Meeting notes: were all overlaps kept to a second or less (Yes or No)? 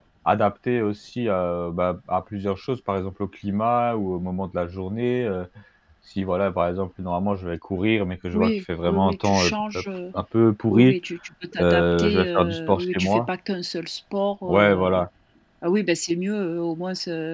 No